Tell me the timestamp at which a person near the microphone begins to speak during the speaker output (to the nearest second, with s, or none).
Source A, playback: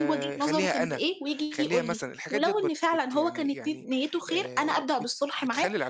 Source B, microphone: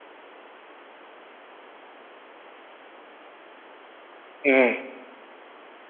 4 s